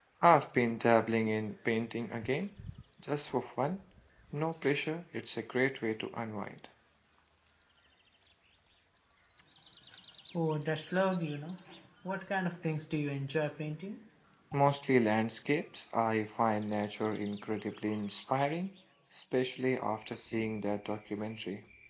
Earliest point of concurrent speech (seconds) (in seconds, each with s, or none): none